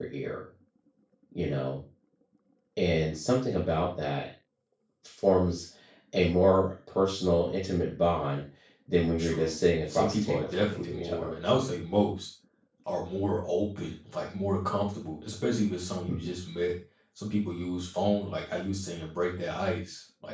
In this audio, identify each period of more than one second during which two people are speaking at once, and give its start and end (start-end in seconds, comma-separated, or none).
9.2-11.3